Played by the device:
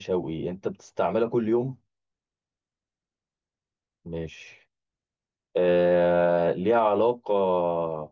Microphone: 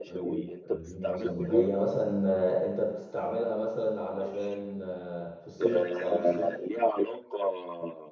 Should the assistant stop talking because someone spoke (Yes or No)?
Yes